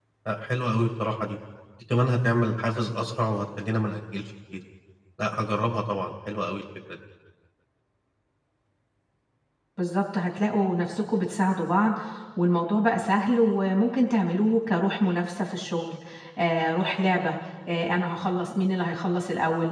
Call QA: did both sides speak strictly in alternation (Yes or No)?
Yes